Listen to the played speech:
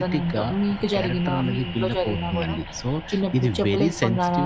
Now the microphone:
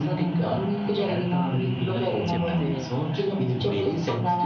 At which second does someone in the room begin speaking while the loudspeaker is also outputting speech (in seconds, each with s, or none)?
2.3 s